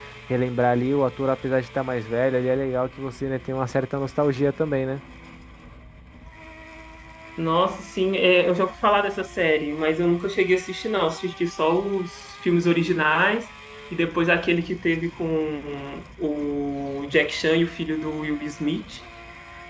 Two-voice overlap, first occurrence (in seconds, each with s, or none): none